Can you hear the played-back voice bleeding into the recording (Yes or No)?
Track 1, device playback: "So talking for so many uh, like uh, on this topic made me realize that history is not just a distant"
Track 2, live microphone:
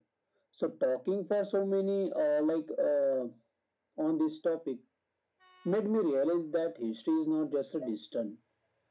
Yes